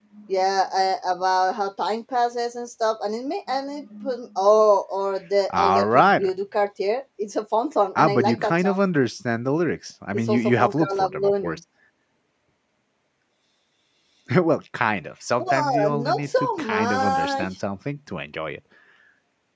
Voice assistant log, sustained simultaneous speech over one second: present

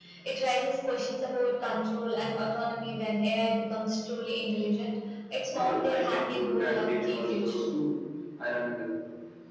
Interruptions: present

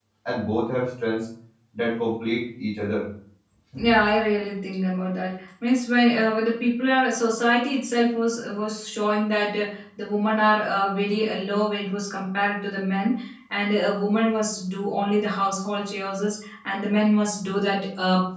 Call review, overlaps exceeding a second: none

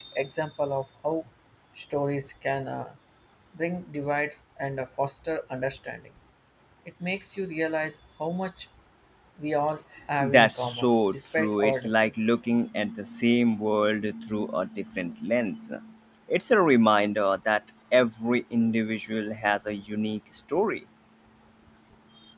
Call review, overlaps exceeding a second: present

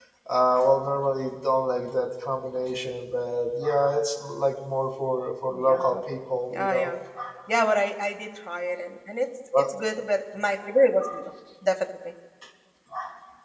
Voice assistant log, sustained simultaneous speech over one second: none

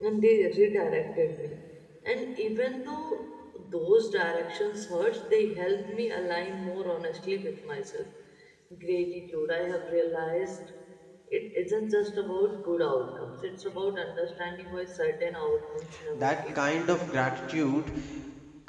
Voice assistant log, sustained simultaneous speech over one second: none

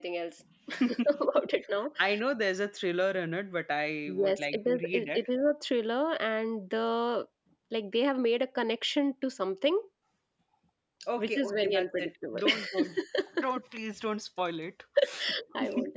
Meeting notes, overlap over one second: present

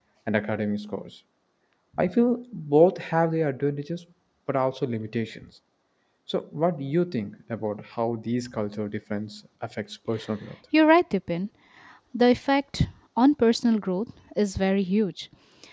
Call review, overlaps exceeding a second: none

